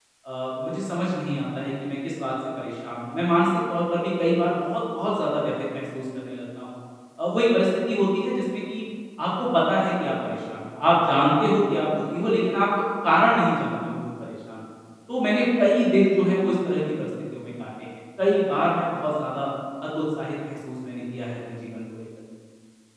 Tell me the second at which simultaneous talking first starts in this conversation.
none

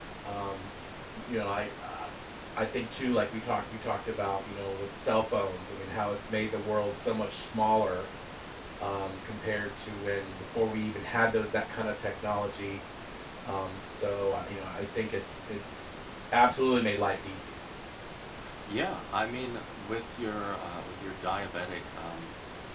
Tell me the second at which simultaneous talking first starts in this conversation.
none

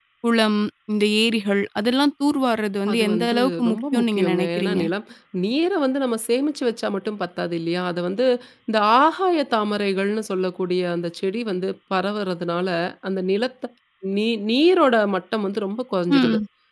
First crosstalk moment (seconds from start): 2.9 s

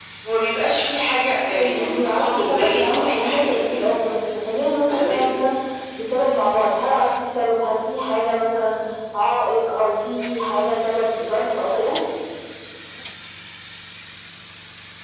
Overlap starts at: 1.5 s

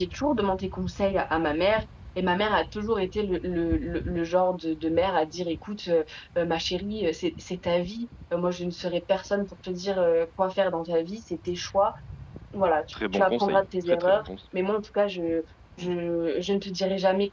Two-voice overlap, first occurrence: 12.9 s

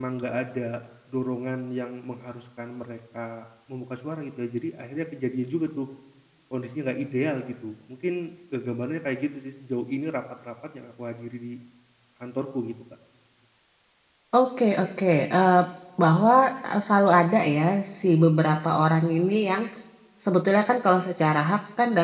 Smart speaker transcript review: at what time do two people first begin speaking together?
none

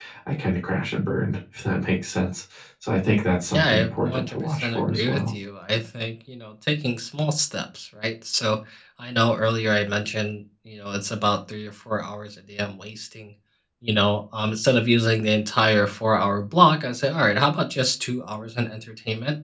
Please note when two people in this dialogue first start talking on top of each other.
3.5 s

